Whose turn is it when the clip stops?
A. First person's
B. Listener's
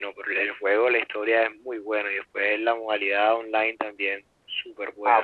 B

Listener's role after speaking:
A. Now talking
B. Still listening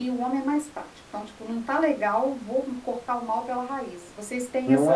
A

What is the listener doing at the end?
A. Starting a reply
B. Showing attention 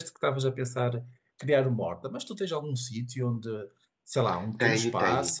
A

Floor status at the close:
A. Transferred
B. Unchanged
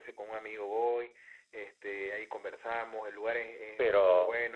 A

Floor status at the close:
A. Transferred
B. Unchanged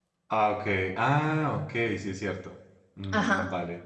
A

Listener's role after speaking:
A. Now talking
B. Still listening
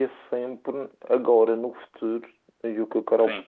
B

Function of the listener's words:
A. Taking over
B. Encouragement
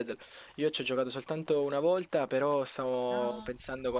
B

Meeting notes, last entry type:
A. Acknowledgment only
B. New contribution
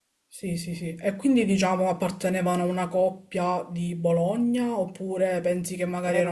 B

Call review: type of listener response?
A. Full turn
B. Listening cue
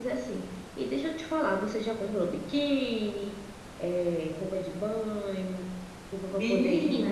B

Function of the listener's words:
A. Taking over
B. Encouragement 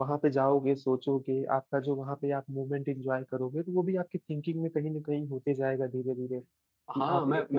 A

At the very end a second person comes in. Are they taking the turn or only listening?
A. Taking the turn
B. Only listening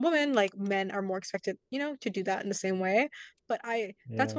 B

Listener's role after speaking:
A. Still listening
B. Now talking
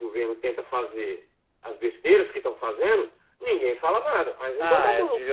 B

